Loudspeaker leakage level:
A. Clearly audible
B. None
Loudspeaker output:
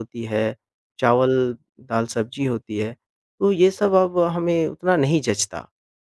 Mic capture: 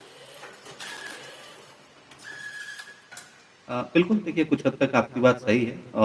B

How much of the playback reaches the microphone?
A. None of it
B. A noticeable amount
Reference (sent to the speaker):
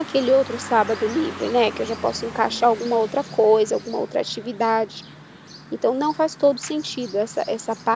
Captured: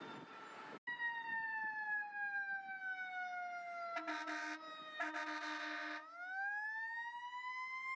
A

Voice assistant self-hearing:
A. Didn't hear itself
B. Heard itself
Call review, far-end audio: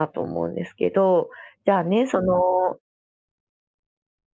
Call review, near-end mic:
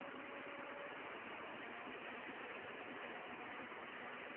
A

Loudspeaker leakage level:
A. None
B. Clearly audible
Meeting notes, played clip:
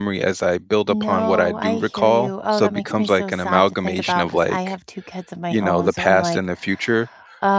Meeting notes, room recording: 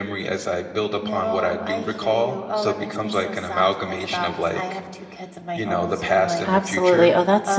B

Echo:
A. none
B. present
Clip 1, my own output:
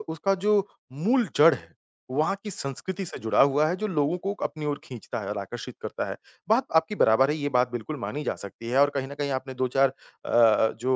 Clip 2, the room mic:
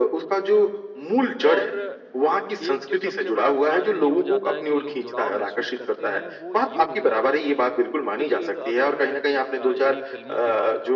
B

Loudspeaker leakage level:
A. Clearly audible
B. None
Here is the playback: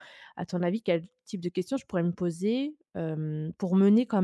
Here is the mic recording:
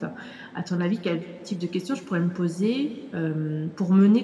A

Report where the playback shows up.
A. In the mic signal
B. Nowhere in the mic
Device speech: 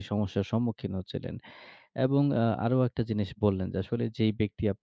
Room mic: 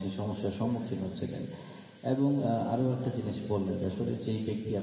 A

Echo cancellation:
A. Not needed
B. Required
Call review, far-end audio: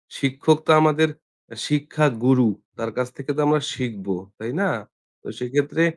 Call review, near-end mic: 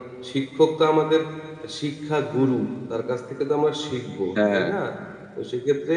B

